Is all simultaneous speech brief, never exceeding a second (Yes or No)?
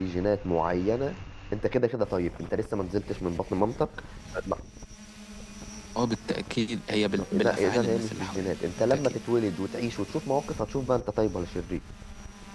No